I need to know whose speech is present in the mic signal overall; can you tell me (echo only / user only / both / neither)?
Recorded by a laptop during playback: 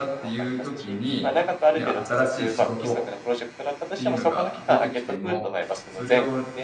both